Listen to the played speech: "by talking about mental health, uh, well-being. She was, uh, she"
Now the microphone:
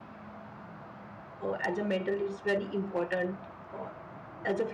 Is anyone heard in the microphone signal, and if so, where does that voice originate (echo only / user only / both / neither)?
user only